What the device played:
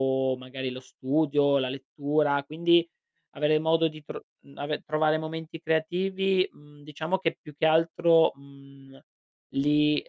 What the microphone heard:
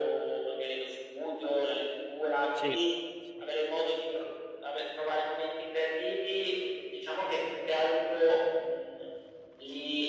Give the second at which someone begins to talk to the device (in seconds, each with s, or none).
2.5 s